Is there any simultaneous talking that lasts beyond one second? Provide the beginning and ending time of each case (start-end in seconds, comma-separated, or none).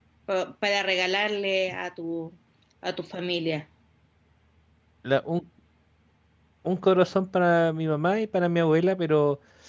none